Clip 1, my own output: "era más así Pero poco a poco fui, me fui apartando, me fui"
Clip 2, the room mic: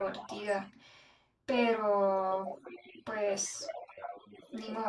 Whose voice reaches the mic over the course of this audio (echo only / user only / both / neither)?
both